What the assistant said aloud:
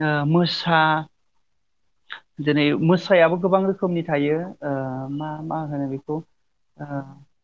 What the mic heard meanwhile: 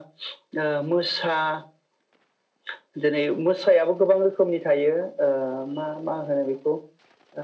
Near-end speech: none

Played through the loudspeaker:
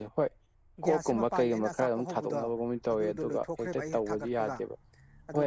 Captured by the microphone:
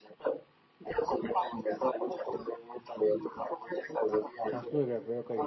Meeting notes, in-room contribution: present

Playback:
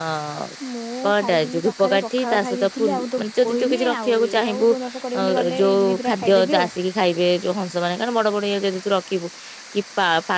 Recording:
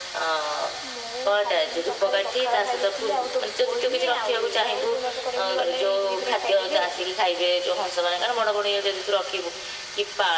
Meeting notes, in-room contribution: none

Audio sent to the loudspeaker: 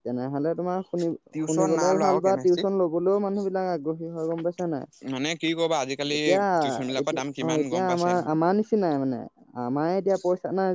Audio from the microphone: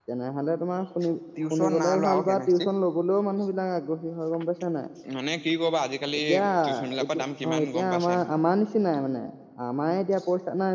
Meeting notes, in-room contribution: none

